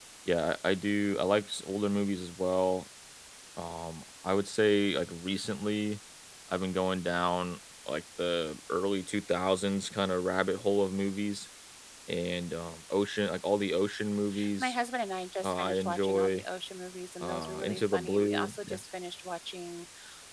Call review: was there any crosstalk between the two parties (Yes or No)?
Yes